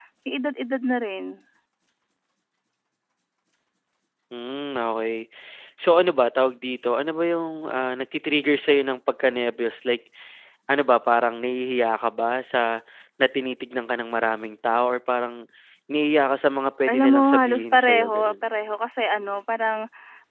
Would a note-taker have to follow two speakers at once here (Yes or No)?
Yes